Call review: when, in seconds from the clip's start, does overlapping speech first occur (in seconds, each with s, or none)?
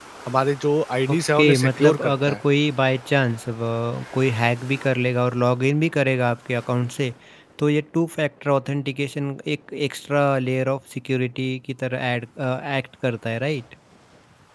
1.1 s